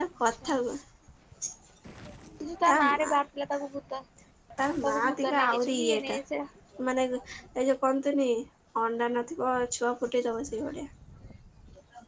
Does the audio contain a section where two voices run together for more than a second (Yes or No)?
Yes